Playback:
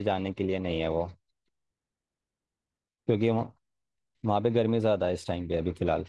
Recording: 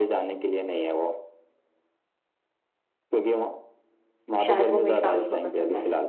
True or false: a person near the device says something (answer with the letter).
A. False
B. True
B